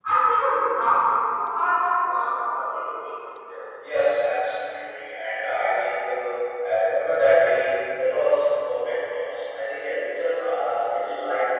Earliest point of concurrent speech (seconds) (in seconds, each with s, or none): none